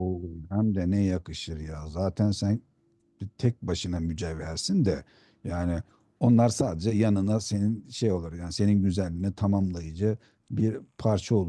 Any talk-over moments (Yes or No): No